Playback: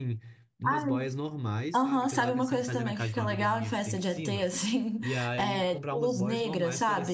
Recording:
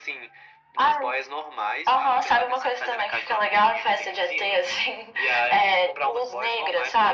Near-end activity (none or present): none